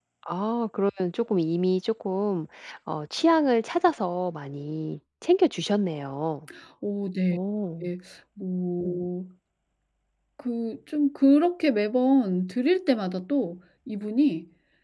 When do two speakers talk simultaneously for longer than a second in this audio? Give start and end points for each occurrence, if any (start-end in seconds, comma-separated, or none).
none